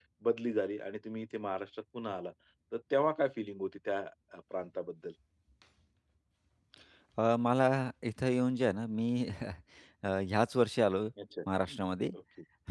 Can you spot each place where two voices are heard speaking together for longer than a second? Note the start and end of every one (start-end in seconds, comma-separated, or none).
none